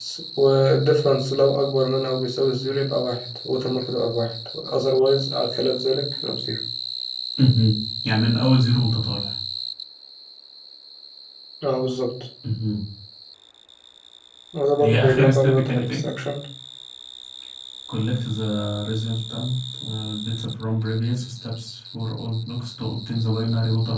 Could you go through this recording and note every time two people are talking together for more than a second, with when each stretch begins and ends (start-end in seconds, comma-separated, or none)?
14.8-16.0